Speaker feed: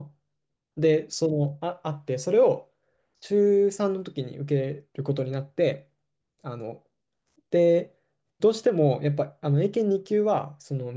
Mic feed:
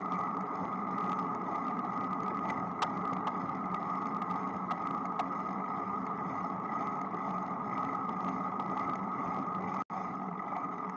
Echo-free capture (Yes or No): Yes